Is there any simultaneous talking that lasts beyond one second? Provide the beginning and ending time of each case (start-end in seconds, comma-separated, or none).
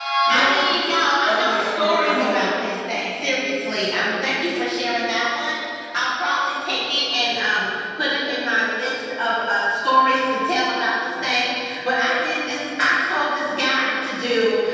1.3-2.5